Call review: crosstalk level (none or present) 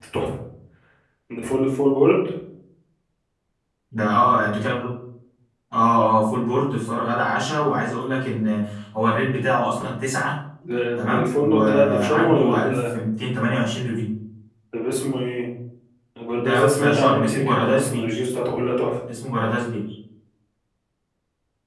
present